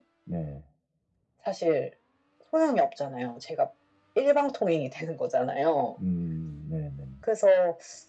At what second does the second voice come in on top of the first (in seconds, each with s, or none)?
none